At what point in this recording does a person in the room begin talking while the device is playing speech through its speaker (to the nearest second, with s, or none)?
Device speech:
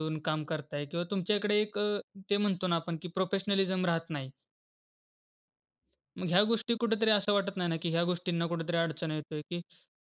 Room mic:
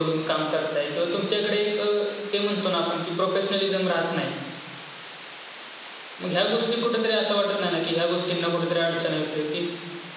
none